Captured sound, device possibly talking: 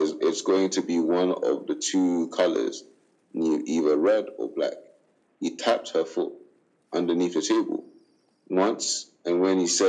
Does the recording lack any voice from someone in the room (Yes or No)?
Yes